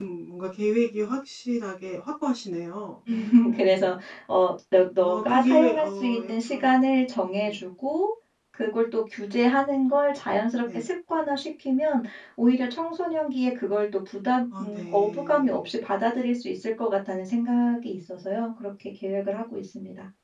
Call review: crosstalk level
present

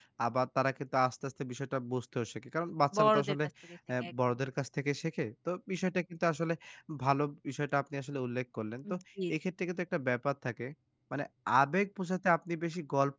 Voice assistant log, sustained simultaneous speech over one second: none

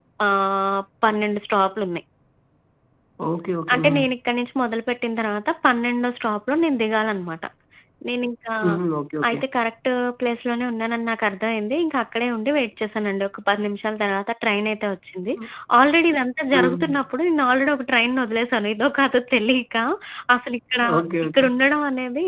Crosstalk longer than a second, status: none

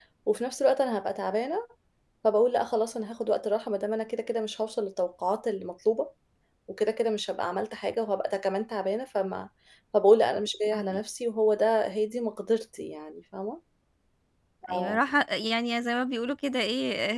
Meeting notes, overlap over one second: none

